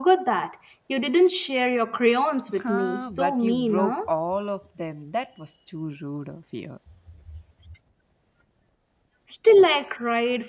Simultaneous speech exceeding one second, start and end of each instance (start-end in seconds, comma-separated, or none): 2.6-4.0